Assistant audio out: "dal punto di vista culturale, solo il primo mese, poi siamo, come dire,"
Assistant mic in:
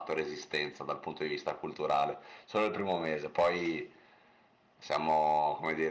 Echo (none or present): present